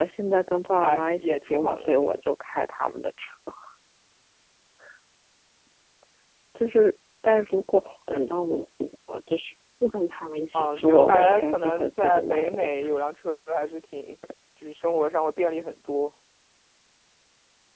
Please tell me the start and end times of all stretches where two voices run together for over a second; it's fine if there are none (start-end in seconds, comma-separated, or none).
0.7-2.2, 10.5-12.8